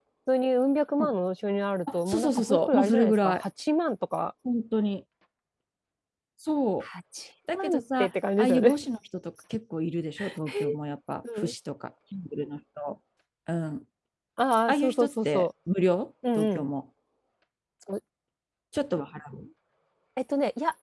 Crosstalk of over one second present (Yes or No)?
Yes